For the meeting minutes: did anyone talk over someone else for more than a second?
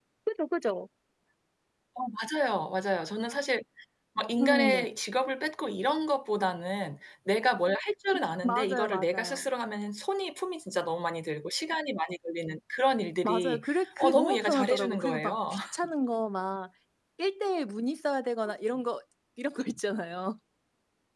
Yes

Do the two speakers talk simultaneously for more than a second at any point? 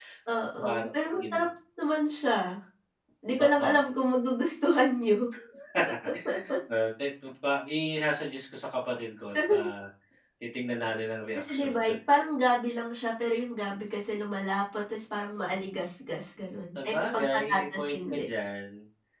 Yes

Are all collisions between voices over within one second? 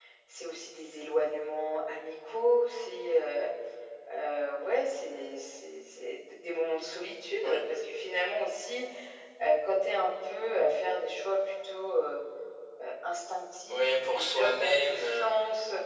No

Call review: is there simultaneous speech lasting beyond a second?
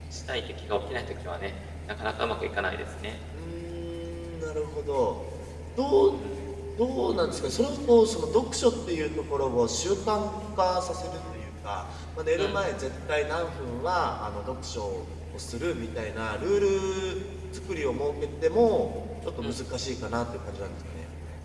No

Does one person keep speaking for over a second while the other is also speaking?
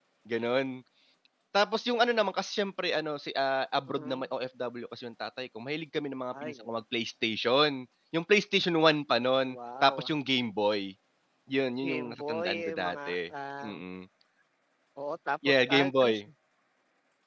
Yes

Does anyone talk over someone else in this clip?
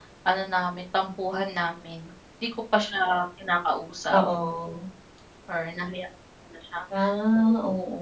No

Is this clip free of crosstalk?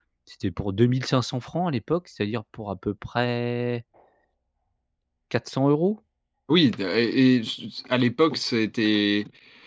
Yes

